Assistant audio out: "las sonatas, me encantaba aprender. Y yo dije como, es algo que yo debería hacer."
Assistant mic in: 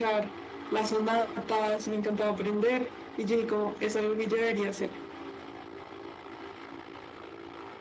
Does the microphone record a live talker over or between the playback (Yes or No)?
No